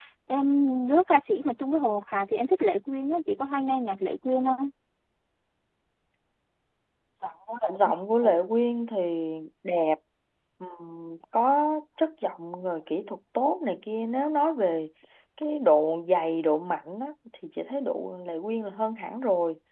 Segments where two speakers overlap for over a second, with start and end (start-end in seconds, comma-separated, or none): none